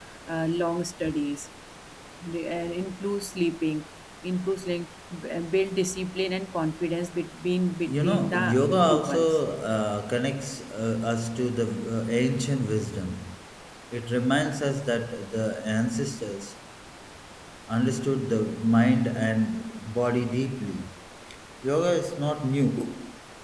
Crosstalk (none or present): present